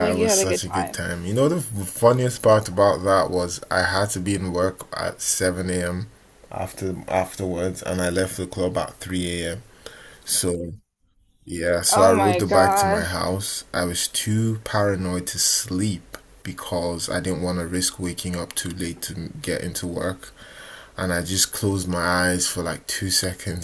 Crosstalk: present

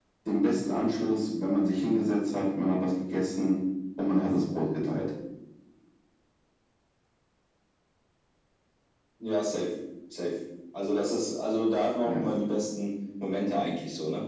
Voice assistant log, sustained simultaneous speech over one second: none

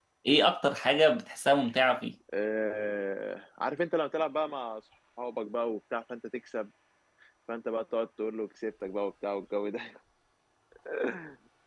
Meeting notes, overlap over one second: none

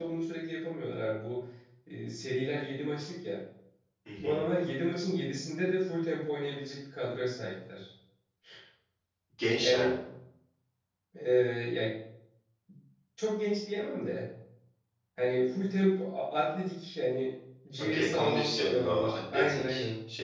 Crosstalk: present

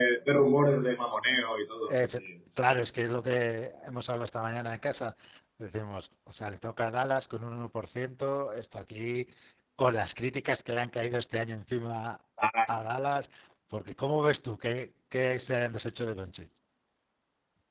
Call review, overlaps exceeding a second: none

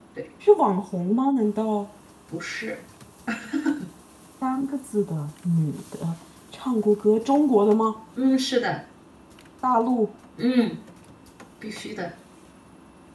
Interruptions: none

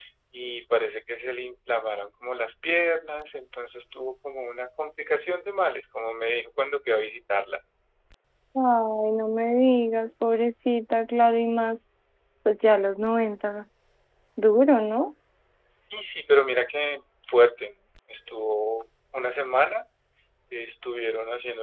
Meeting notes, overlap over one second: none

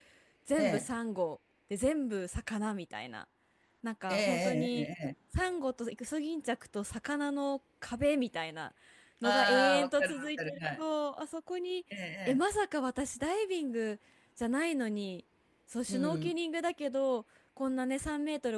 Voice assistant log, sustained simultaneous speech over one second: present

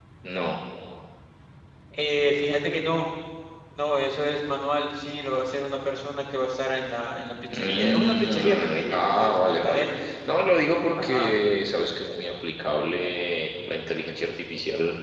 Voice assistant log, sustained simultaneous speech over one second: present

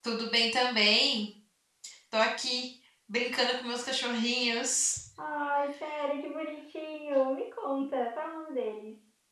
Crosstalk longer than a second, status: none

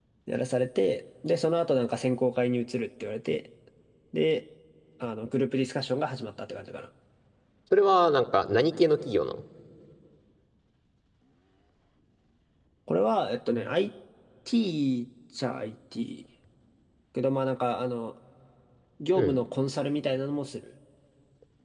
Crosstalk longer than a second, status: none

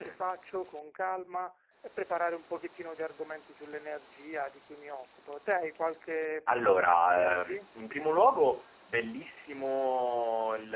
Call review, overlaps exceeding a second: present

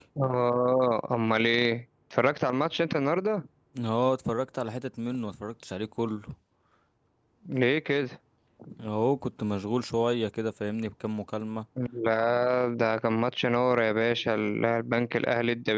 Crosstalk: none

